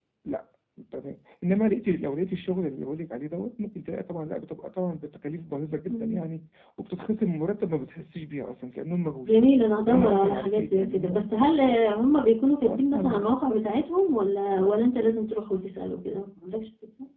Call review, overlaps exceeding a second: present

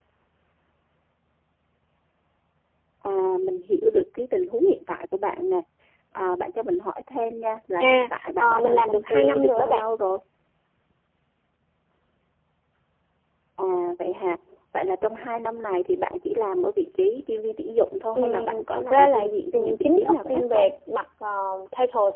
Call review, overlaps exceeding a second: present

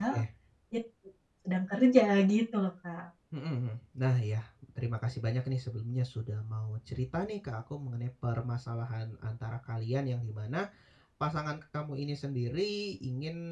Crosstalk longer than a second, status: none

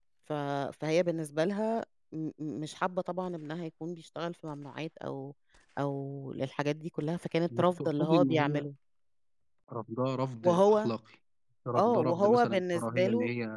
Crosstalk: present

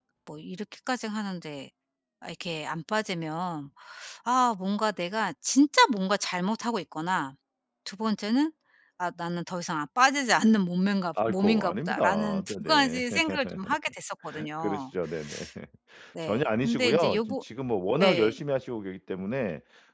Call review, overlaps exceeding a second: present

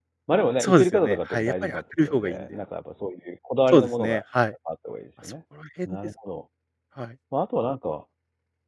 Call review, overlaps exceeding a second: present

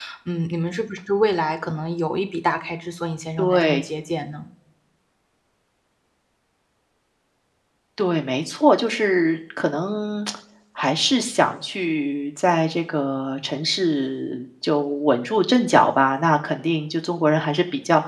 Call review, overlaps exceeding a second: none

